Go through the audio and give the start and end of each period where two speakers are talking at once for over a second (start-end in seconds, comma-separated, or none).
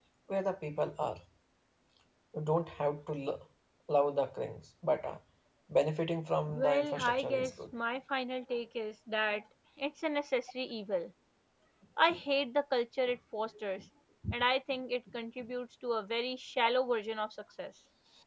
6.5-7.7